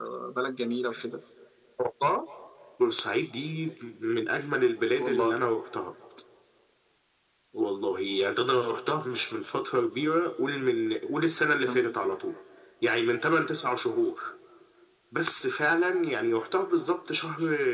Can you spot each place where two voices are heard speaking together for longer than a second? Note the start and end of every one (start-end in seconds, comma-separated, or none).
none